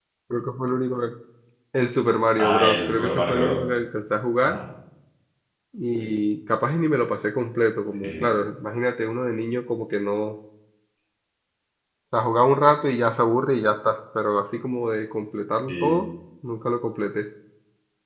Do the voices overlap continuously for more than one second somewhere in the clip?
Yes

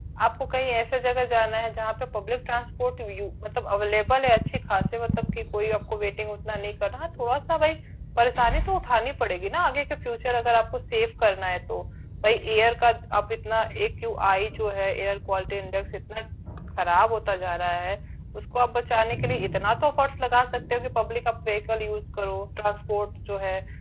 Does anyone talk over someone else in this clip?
No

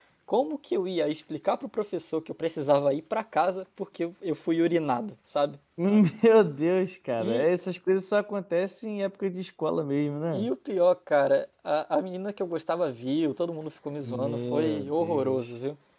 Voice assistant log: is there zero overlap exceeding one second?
No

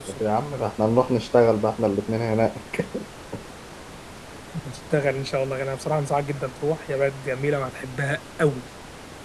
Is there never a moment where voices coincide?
Yes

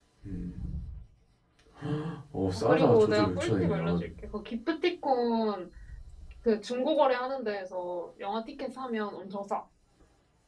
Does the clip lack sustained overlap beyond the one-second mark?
No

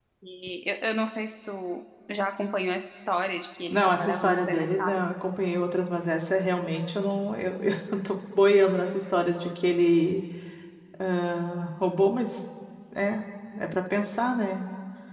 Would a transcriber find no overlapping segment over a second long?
No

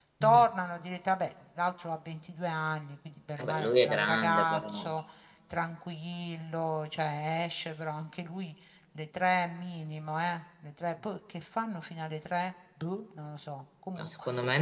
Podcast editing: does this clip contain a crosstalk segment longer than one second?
Yes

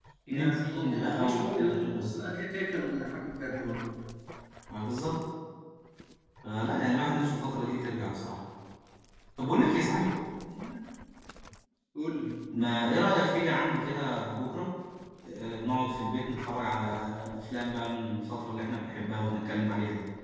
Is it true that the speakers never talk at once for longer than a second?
No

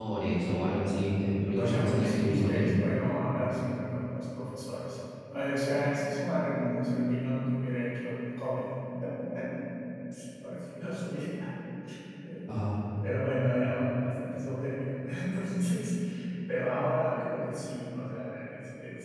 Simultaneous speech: Yes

